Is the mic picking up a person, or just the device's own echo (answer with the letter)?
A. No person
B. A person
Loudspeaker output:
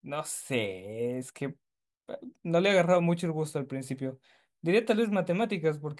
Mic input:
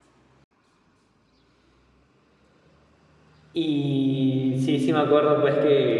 B